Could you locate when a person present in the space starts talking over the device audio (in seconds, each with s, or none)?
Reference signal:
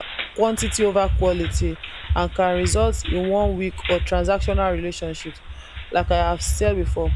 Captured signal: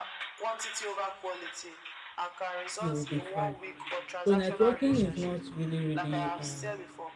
2.8 s